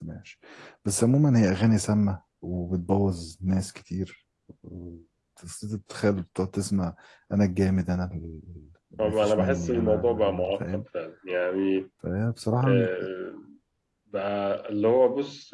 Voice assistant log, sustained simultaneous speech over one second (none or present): present